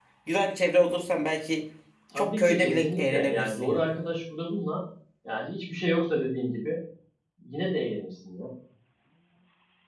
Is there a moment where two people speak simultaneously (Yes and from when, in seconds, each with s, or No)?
Yes, from 2.1 s